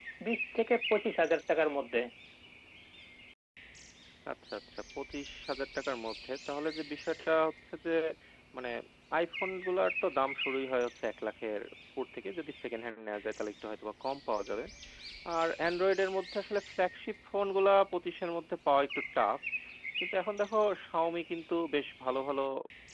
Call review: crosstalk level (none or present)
none